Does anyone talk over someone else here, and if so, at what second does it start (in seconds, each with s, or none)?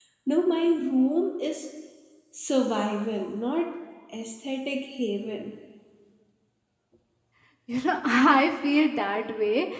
none